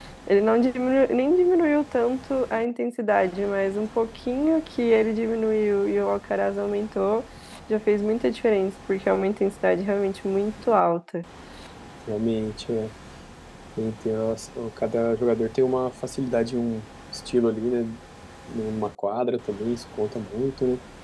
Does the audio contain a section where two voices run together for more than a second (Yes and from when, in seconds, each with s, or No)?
No